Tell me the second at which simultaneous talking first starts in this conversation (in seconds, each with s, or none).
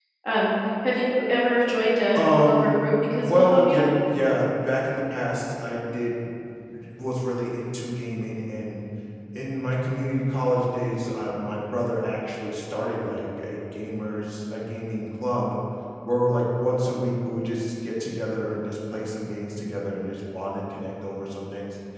2.1 s